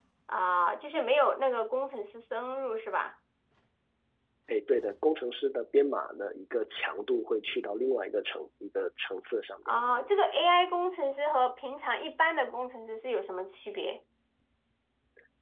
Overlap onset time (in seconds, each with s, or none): none